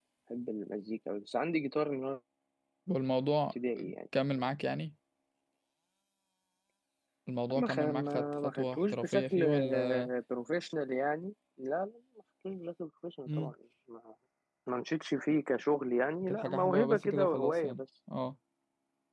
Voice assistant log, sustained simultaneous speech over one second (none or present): present